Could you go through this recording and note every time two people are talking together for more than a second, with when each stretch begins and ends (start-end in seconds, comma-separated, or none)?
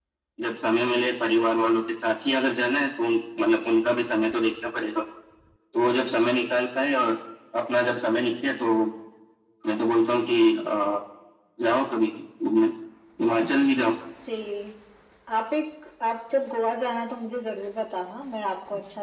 none